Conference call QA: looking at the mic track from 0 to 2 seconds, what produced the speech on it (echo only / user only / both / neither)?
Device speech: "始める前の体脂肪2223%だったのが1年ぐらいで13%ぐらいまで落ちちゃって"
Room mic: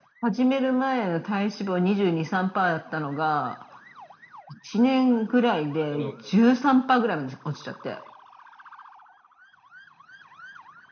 echo only